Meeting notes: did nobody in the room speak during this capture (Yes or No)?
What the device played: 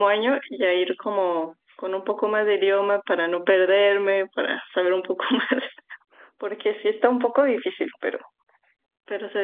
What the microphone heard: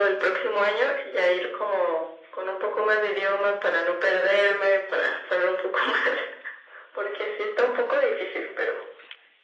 Yes